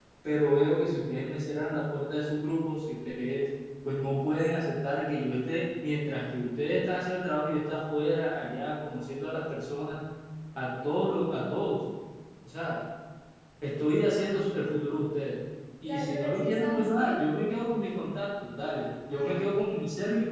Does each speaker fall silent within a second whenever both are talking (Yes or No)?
No